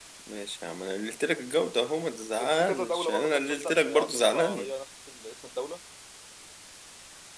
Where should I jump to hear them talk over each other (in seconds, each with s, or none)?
2.4 s